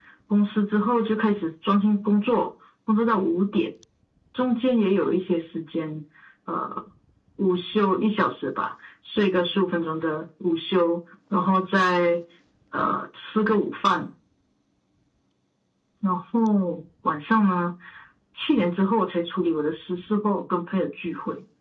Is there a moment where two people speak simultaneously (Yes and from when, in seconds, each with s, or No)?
No